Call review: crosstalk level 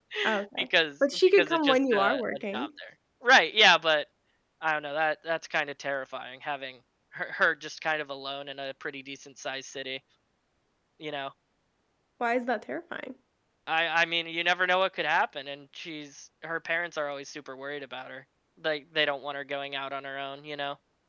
present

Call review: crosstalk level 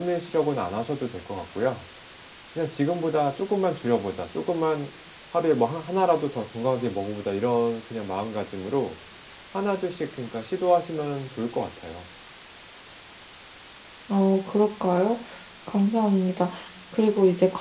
none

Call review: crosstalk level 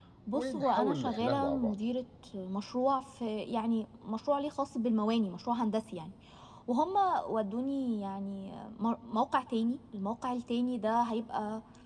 present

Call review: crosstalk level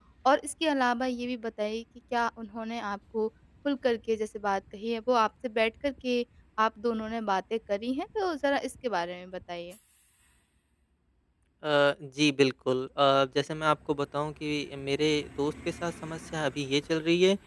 none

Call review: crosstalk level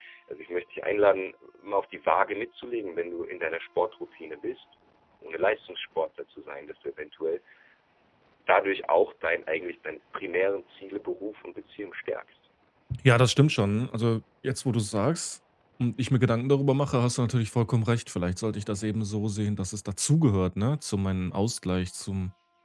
none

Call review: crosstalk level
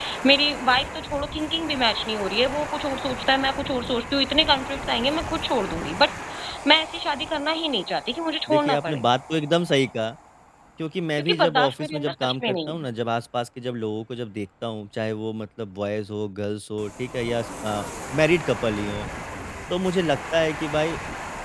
present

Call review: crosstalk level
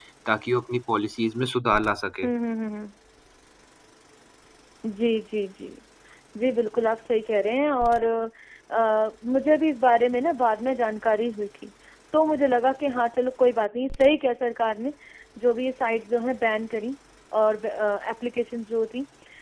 none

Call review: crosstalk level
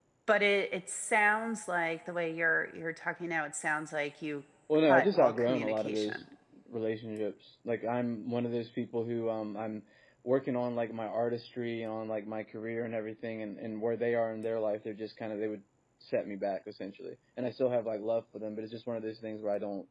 present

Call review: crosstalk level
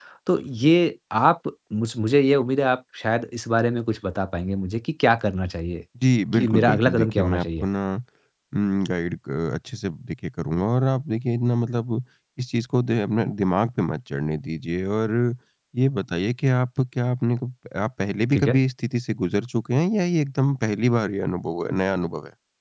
present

